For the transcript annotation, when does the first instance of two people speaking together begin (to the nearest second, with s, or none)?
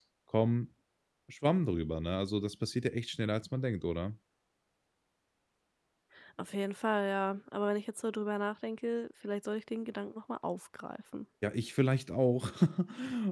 none